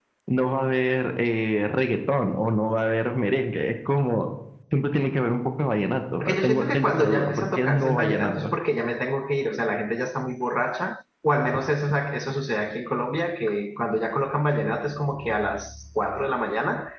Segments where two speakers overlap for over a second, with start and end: 6.2-8.5

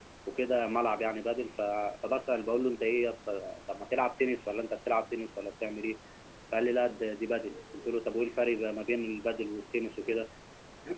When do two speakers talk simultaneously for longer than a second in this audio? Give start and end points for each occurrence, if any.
none

